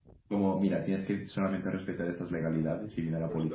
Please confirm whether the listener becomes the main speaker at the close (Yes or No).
Yes